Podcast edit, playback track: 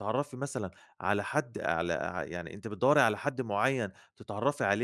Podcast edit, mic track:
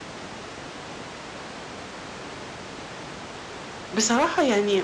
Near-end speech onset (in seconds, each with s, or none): 3.7 s